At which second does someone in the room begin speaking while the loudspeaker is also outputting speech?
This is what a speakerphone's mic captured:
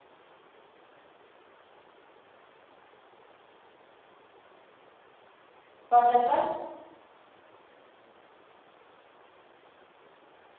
5.9 s

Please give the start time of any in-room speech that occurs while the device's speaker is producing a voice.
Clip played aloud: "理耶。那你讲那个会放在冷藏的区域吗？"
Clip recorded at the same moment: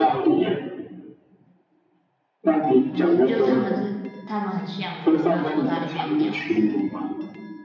2.9 s

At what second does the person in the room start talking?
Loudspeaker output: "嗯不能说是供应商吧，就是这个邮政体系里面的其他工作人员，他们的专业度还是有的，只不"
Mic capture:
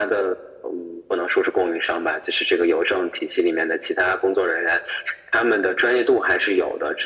none

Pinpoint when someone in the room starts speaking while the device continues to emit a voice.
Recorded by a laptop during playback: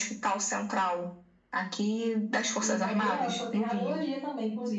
2.6 s

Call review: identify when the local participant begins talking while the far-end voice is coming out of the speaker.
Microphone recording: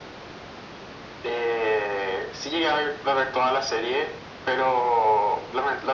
none

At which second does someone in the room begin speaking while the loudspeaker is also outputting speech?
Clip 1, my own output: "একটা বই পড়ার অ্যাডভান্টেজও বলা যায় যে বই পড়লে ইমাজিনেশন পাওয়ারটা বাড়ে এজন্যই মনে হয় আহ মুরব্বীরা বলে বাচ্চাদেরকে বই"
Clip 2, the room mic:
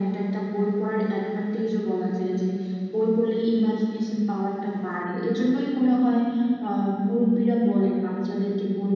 none

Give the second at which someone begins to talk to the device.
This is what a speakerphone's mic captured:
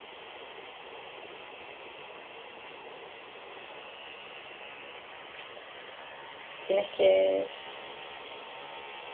6.6 s

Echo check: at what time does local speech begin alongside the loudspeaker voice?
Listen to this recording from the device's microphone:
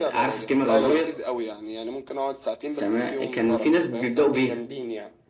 0.7 s

